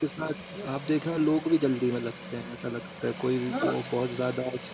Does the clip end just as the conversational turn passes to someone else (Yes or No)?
No